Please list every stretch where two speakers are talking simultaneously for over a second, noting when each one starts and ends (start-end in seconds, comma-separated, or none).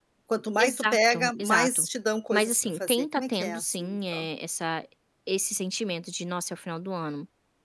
0.6-1.9, 2.3-4.0